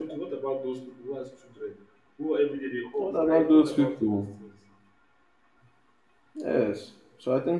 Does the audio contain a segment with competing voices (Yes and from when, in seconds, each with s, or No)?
Yes, from 3.0 s